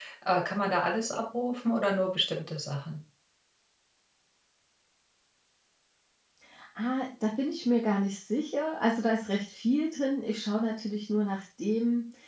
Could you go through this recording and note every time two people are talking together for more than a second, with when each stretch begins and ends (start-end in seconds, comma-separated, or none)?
none